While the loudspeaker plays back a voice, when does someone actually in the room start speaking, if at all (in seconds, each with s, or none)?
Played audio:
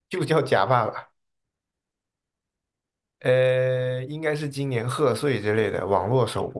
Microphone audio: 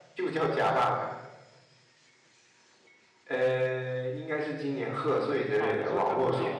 5.5 s